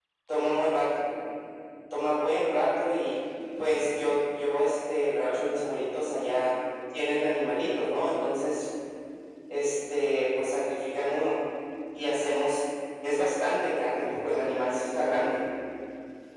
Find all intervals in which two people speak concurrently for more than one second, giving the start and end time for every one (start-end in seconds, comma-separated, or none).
14.0-15.3